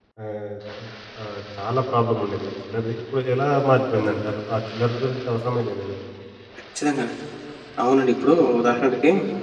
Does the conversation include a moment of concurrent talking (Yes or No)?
No